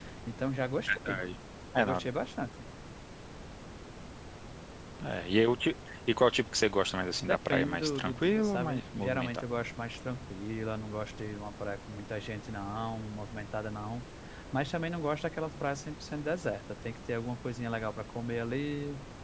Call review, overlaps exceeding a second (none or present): present